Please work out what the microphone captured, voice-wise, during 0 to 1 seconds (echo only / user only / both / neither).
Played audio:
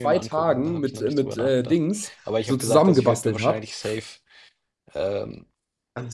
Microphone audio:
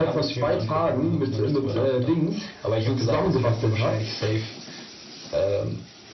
echo only